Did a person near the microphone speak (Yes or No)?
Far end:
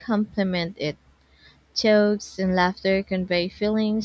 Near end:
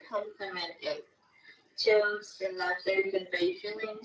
No